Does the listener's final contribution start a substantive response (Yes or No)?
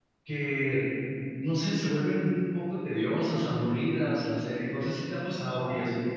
Yes